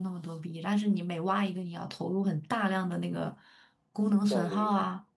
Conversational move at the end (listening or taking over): listening